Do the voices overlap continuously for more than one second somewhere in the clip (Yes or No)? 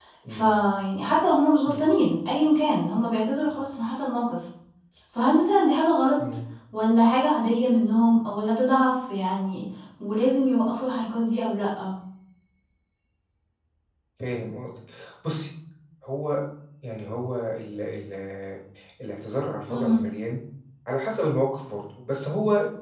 No